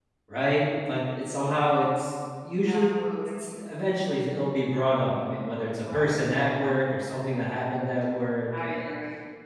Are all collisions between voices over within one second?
Yes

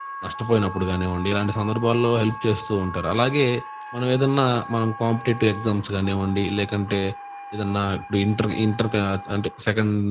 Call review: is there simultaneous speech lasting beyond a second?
No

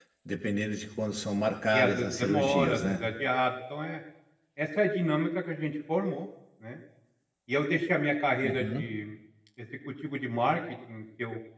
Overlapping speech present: Yes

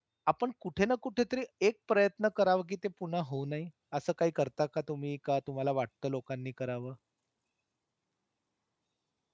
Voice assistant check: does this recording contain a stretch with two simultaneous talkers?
No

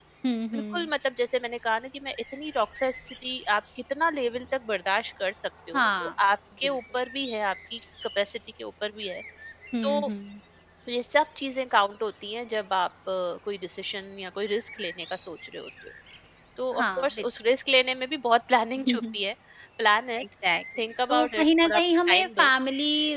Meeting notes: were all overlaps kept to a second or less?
No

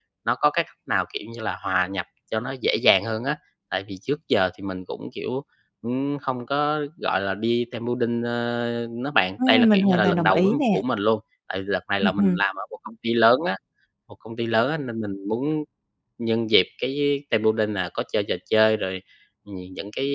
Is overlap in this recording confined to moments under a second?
No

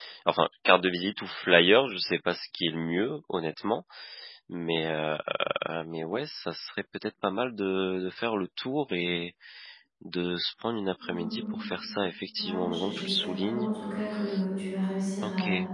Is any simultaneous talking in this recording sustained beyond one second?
Yes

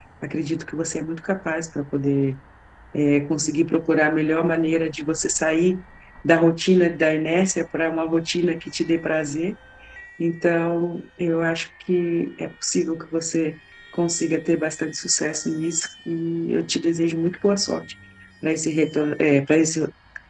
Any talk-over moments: No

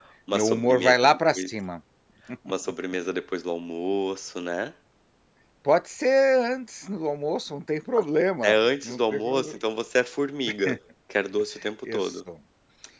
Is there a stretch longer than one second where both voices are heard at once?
Yes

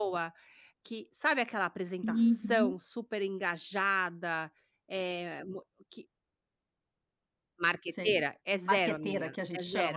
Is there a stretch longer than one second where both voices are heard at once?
Yes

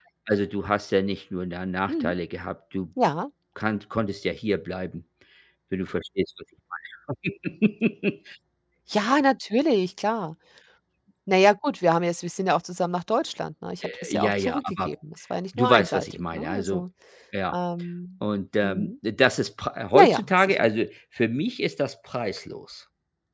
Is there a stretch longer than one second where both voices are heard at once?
Yes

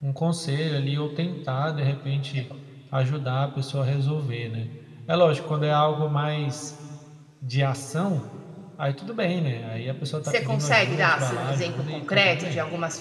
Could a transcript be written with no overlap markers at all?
No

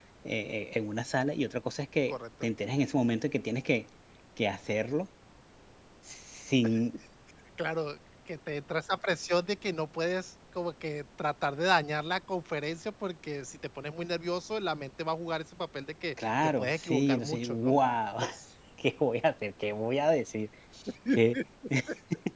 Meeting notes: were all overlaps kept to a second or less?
No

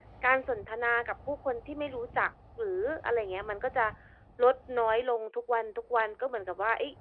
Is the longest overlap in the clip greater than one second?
No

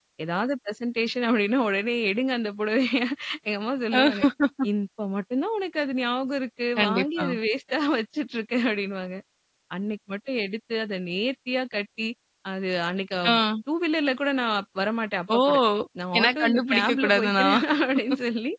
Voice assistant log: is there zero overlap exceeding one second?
No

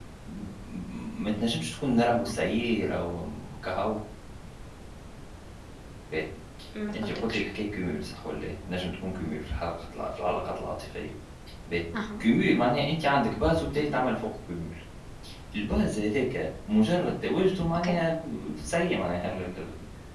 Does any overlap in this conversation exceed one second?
No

